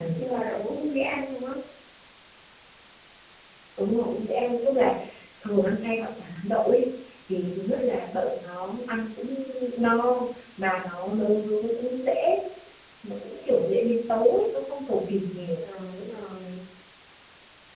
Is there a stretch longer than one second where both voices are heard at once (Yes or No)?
No